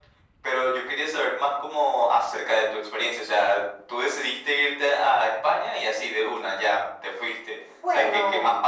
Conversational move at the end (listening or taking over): listening